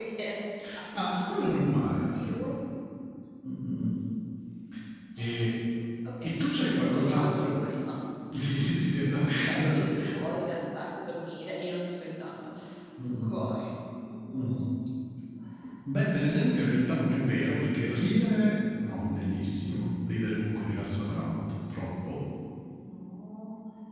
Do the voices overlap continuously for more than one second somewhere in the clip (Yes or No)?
Yes